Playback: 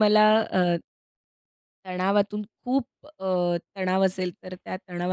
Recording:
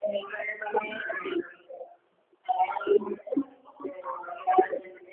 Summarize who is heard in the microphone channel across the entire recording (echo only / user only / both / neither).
echo only